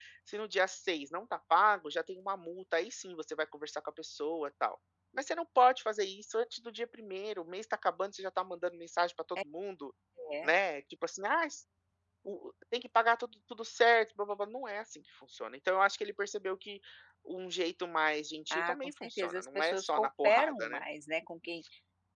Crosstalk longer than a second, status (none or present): present